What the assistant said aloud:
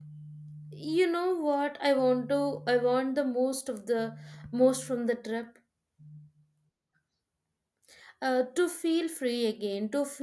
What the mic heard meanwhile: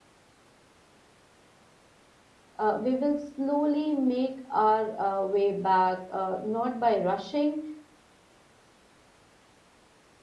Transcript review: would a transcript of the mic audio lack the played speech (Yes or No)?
Yes